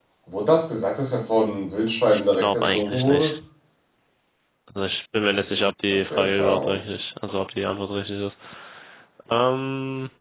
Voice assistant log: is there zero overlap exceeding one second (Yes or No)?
No